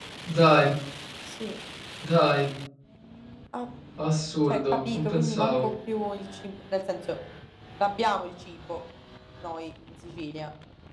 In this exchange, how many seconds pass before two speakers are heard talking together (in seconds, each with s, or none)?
4.5 s